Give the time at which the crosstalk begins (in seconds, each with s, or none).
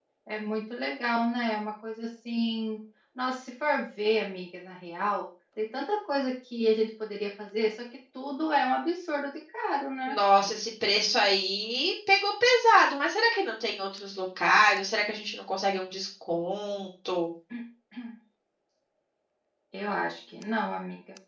none